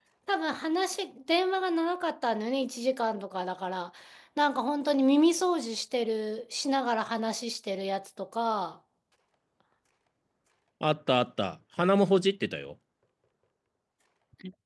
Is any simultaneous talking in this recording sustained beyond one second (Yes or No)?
No